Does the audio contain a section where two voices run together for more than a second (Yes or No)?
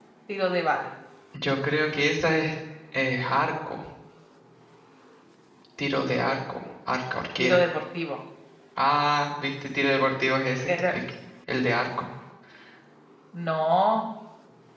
No